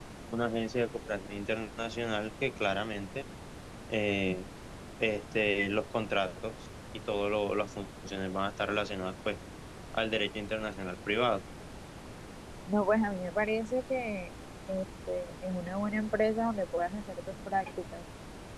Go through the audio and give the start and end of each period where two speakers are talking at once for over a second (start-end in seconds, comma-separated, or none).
none